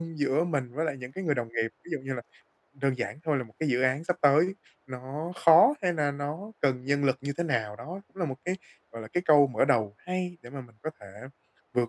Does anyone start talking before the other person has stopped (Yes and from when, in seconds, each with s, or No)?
No